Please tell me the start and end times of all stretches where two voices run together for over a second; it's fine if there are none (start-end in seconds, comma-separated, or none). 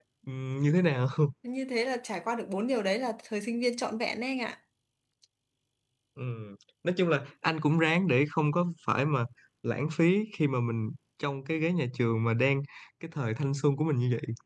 none